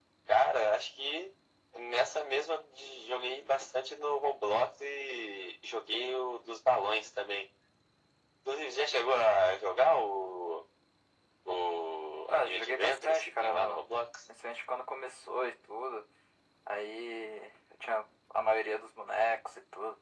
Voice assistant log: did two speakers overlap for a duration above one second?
Yes, from 12.3 s

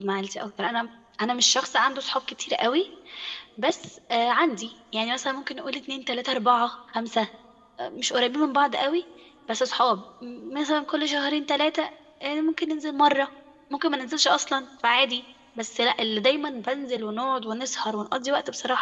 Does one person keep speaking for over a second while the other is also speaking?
No

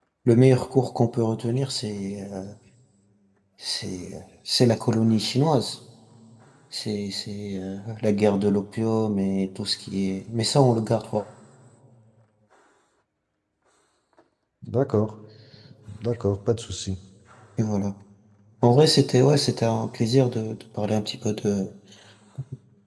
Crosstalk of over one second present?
No

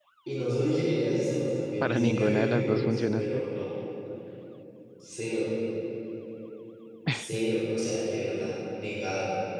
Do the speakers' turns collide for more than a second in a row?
Yes, from 1.8 s

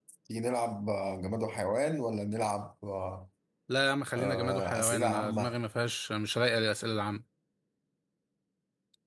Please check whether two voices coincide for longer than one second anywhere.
Yes, from 4.2 s

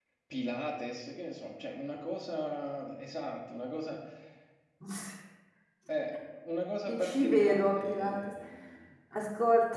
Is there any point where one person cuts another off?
Yes, from 6.8 s

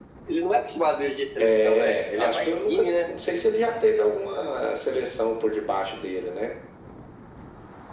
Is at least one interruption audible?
Yes, from 1.4 s

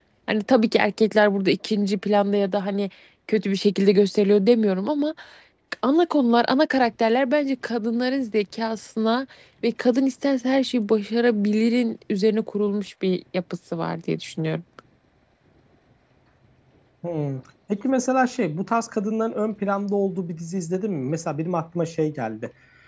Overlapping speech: No

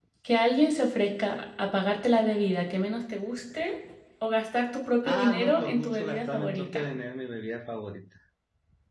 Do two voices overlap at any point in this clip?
Yes, from 5.0 s

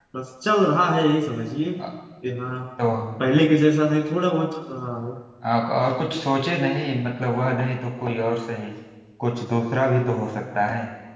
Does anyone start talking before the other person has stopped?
No

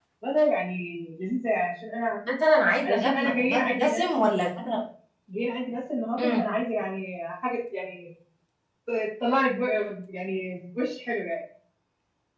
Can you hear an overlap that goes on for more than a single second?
Yes, from 2.8 s

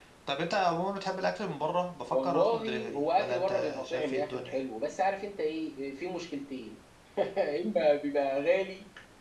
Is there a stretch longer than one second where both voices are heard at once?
Yes, from 2.1 s

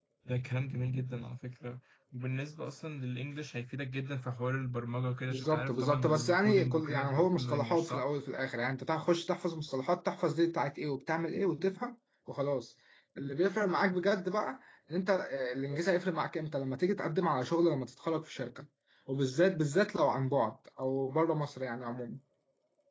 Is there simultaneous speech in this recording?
Yes, from 5.3 s

